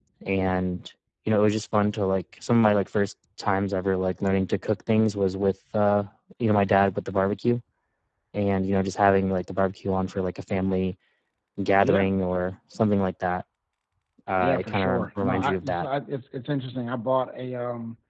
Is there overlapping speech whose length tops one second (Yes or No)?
Yes